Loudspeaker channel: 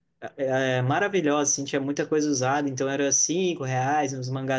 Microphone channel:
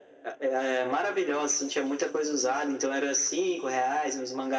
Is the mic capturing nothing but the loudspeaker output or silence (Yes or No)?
Yes